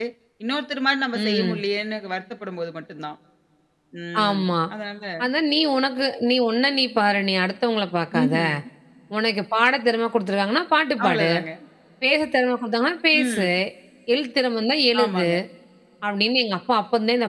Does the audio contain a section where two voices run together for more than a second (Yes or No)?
No